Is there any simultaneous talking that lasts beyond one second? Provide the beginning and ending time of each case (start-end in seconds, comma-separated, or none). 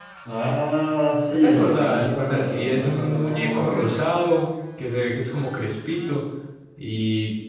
1.3-3.9